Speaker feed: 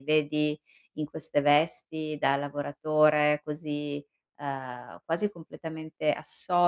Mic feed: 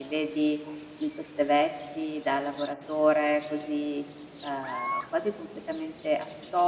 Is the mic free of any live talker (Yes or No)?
Yes